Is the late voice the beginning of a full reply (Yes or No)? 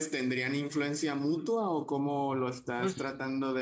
Yes